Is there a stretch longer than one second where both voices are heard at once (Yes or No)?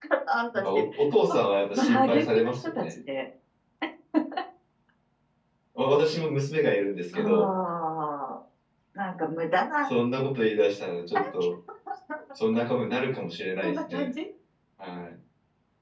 Yes